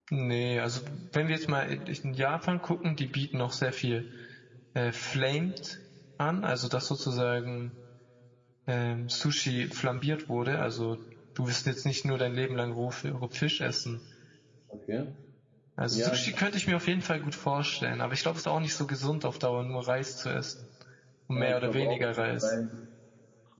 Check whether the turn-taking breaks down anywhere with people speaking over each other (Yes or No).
Yes